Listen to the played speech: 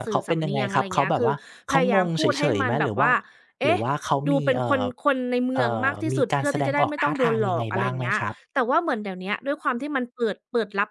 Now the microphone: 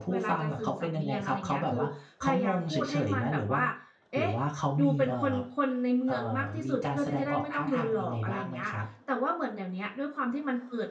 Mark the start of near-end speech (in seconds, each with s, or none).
none